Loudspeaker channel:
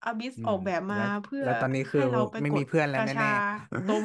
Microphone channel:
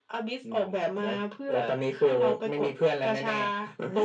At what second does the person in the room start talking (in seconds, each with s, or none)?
none